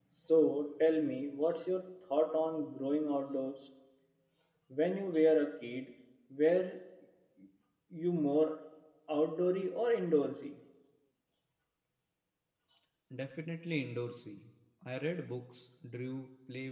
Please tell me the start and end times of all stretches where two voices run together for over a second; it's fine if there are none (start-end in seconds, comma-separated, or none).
none